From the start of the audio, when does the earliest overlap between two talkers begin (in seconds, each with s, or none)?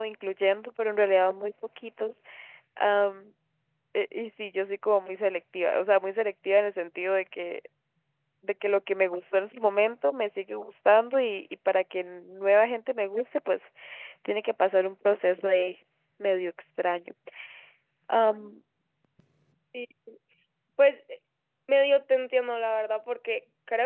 none